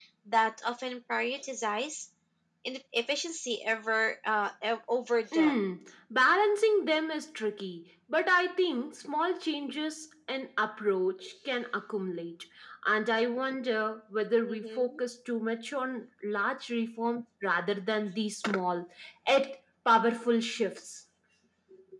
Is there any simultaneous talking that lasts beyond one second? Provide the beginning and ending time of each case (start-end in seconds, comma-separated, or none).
none